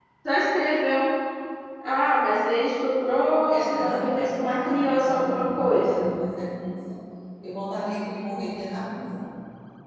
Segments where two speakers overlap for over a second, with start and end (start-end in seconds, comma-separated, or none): 3.5-6.0